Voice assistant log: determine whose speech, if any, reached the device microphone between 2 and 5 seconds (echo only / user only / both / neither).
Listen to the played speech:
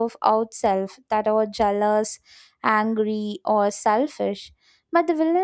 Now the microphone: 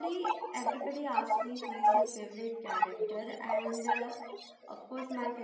both